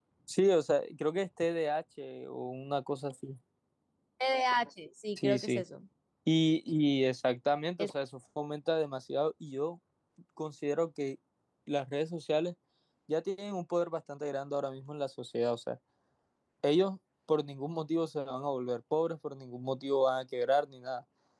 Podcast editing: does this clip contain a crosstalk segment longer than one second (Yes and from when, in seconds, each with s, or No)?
No